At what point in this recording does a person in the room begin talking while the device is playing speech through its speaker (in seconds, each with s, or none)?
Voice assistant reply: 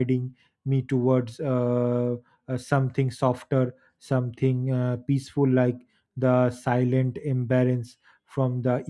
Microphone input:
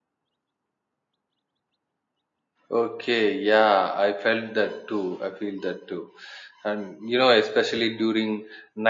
2.7 s